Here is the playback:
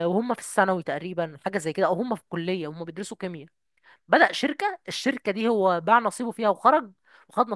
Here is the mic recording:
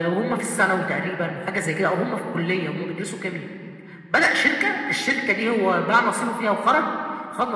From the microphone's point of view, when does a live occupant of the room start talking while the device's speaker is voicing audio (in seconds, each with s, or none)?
none